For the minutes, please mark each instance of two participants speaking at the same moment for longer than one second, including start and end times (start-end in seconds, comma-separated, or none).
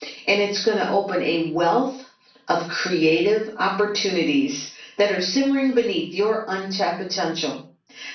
none